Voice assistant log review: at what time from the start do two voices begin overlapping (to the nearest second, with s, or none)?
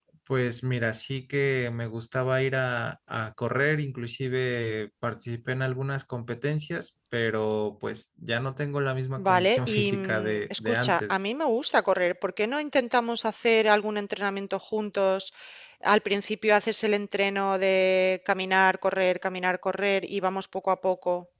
9 s